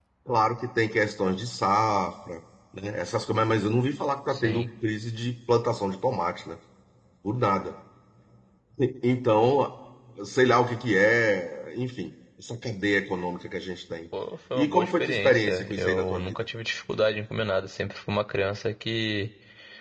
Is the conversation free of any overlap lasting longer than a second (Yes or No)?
No